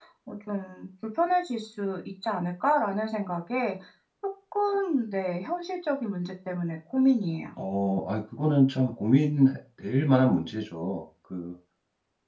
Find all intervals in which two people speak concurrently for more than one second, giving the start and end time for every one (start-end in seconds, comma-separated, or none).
none